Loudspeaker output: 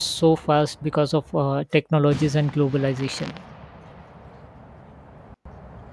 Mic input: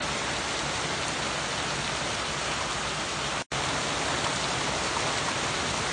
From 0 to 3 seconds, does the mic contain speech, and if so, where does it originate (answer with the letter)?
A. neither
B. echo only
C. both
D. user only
A